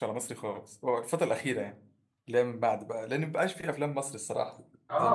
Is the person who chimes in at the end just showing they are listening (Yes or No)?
No